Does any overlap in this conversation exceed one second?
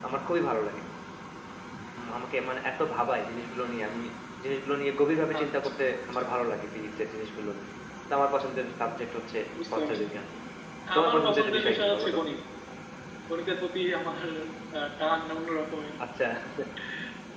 Yes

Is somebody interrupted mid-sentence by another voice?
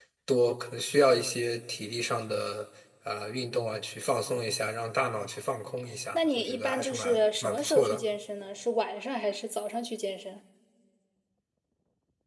Yes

